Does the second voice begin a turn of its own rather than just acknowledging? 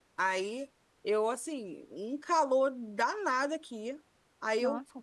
No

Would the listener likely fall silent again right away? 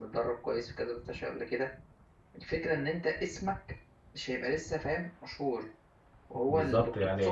No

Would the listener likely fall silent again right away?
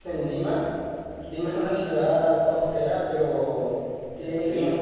Yes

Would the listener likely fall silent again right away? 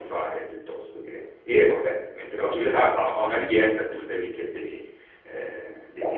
Yes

